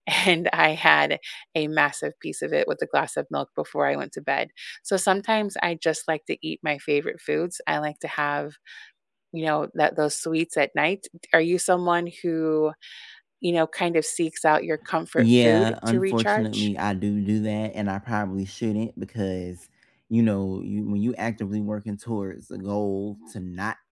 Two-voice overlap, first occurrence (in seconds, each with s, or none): 15.2 s